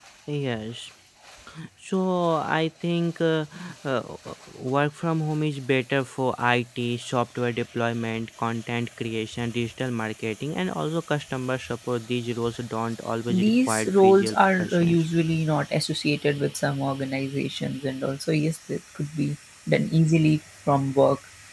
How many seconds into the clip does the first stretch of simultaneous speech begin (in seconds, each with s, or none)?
13.3 s